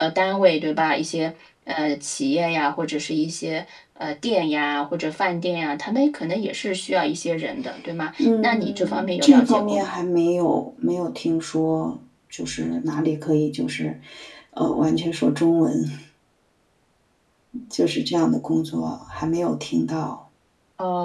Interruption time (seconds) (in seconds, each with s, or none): 8.2 s